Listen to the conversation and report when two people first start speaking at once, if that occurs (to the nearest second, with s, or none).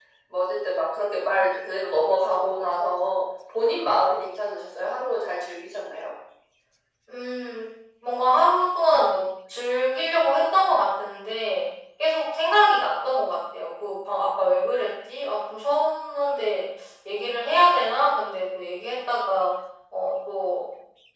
none